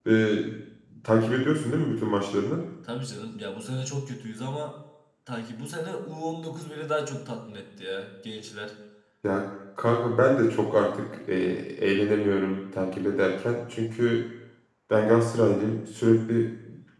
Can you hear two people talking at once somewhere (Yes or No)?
No